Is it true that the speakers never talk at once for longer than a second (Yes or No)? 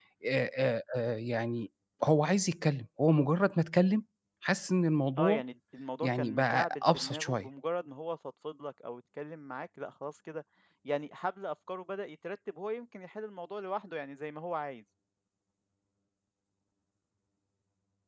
No